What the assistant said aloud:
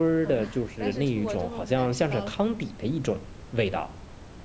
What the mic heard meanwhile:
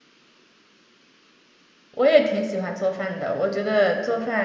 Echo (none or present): none